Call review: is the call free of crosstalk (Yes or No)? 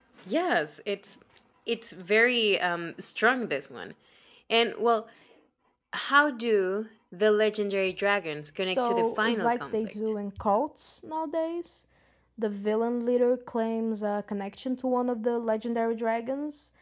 No